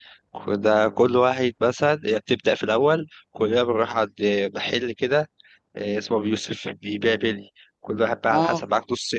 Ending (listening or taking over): listening